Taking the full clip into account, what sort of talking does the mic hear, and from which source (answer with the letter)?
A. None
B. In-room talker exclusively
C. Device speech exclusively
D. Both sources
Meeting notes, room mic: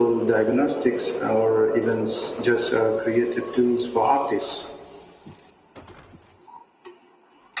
C